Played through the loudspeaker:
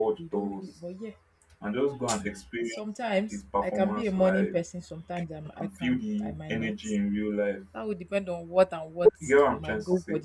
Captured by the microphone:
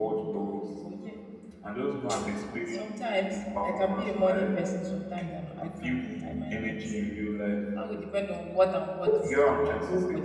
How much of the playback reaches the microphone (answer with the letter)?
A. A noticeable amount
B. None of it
A